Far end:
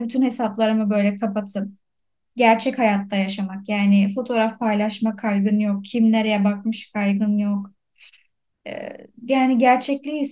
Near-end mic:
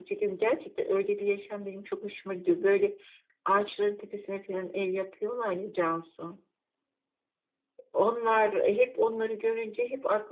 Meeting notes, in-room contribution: present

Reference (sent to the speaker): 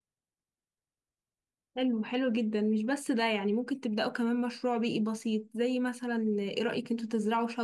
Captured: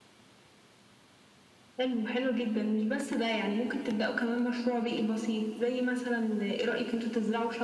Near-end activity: none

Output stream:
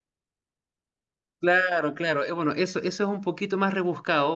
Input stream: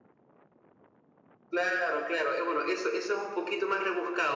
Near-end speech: none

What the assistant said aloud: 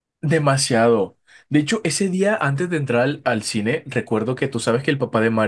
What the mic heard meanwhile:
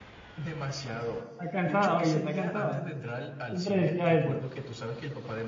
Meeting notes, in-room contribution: present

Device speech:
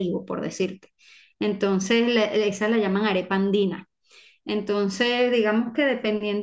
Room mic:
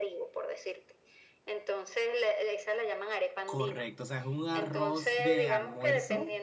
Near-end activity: present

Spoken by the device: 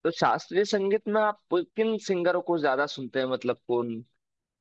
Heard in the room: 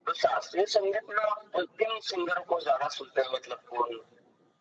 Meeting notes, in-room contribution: none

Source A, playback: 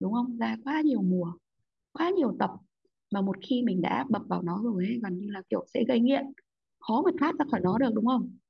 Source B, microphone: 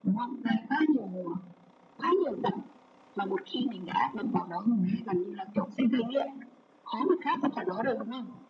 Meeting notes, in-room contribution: none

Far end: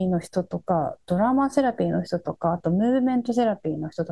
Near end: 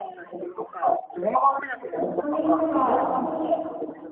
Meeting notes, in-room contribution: present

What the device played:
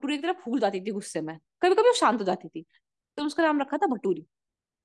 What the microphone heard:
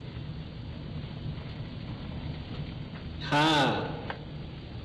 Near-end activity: present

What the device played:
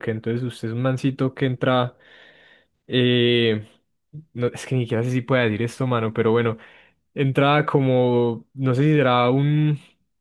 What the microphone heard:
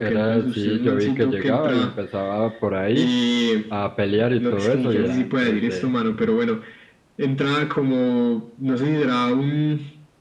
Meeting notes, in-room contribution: present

